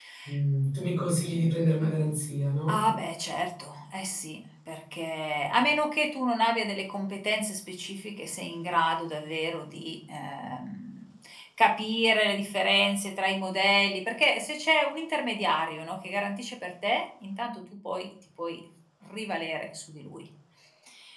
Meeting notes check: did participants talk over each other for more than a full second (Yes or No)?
No